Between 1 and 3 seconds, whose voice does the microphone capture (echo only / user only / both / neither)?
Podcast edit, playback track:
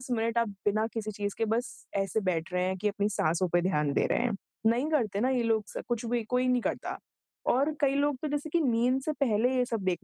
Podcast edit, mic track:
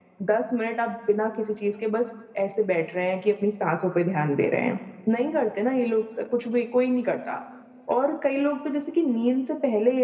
echo only